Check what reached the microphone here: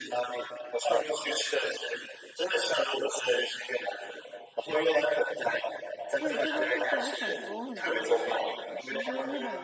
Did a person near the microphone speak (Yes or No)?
Yes